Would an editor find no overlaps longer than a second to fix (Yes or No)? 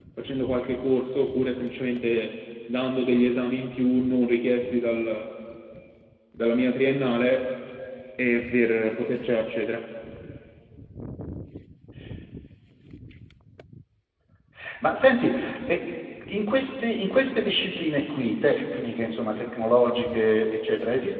Yes